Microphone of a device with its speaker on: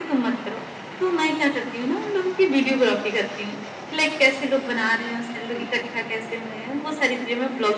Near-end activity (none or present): none